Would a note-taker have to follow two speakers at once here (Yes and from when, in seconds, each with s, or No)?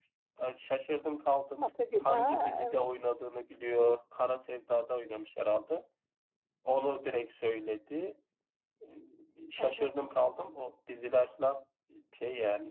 Yes, from 1.6 s